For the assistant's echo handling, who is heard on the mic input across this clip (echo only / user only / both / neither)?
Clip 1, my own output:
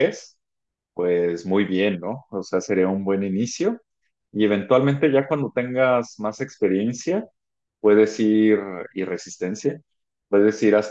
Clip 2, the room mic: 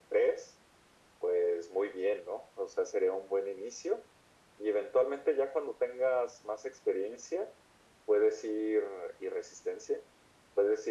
echo only